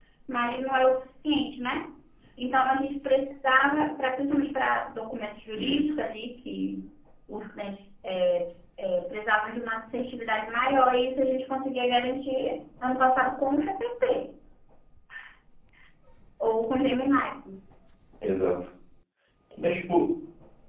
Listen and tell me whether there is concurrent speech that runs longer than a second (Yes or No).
No